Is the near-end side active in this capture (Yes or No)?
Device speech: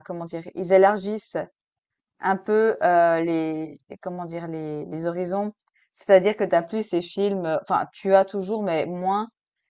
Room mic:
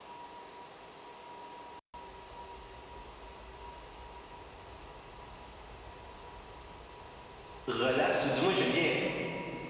Yes